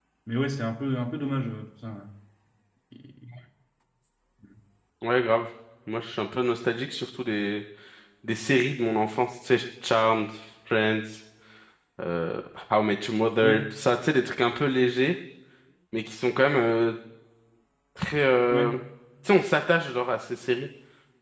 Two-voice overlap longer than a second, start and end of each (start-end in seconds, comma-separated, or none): none